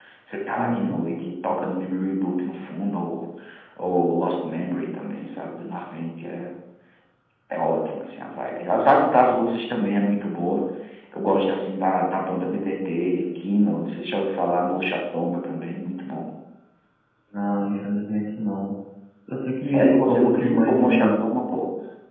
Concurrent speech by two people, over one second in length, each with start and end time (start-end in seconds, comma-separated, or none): 19.6-21.1